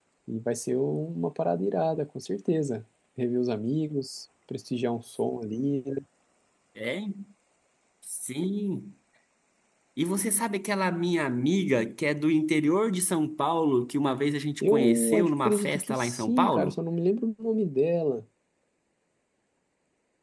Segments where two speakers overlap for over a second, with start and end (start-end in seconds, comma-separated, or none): 14.6-16.8